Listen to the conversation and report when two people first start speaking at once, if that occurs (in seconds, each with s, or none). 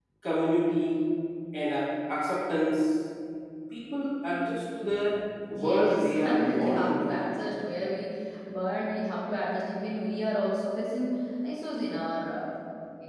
5.6 s